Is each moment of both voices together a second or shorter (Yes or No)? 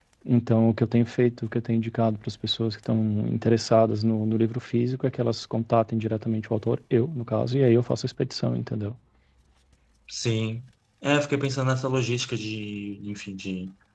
Yes